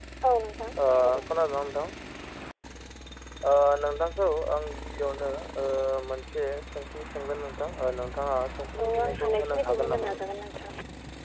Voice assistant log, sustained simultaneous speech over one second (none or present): present